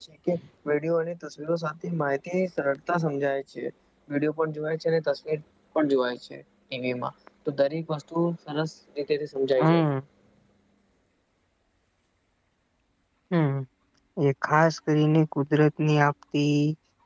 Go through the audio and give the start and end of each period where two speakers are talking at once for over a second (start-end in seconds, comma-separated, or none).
none